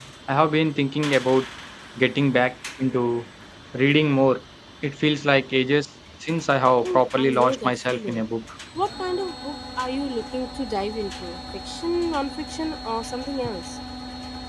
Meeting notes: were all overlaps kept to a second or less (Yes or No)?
No